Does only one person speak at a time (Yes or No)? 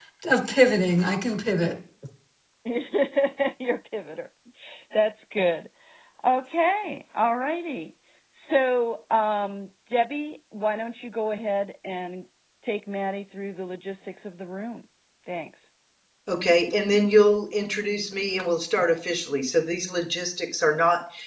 Yes